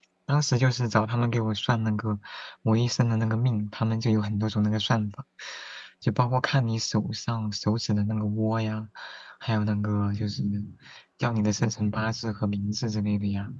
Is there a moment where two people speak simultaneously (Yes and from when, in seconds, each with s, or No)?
No